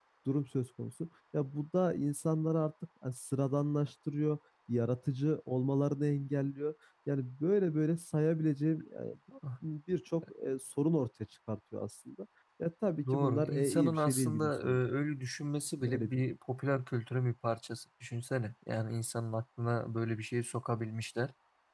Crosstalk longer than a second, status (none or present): present